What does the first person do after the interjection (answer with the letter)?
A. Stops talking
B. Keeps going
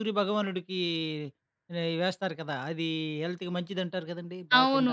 A